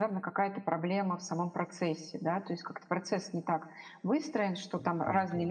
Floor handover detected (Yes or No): No